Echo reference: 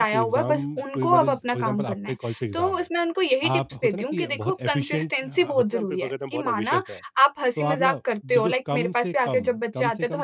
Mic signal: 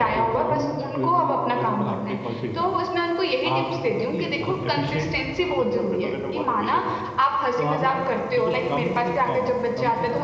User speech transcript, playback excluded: none

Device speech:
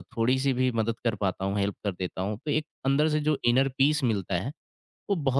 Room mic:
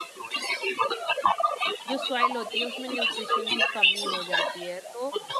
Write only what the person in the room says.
जो सॉइल होती है उसमें न्यूट्रिशन की कमी हो जाती है तो

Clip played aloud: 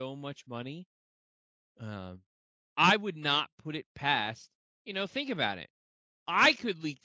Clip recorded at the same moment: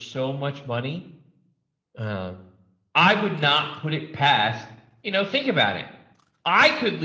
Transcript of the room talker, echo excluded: none

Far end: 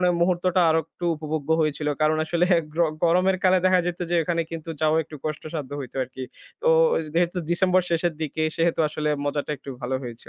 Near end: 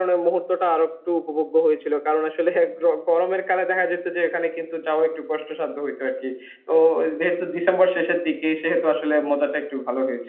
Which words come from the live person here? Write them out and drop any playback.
none

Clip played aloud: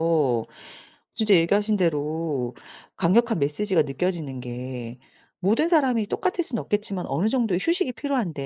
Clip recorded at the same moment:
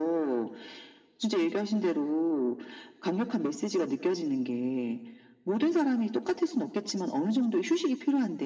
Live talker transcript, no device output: none

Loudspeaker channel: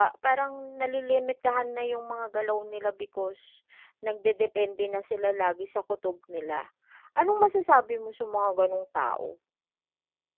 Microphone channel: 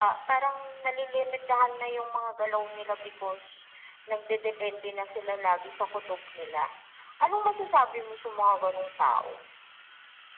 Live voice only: none

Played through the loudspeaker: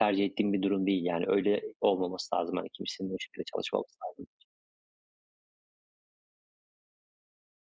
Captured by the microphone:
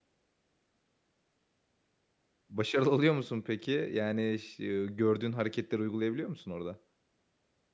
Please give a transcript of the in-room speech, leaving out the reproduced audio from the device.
Başarılı oluyor musun peki? Yani ş gördüğün hareketleri uygulayabiliyor musun orada?

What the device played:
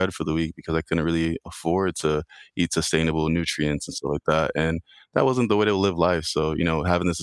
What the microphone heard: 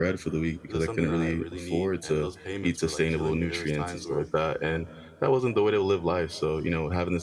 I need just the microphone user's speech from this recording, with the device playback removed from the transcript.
is this something that I really need?" And those payments were, like, killing me. There was times where

